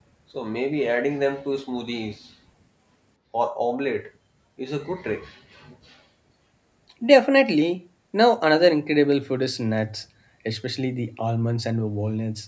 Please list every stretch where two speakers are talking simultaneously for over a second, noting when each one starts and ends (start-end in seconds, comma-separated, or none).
none